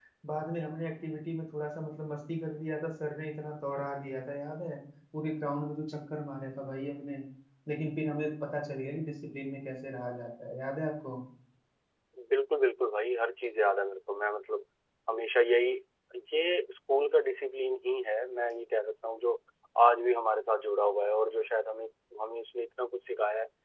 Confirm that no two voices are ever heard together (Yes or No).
Yes